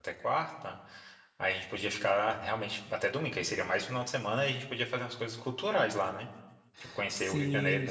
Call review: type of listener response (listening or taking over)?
taking over